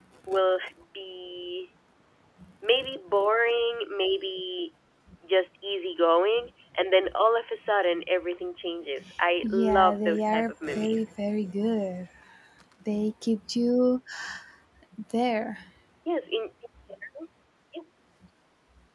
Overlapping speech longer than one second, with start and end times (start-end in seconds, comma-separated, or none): 9.4-11.0